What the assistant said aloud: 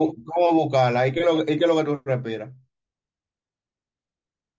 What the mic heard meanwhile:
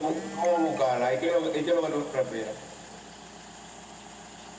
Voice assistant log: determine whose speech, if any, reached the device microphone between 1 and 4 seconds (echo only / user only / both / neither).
echo only